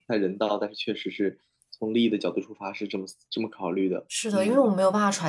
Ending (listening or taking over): taking over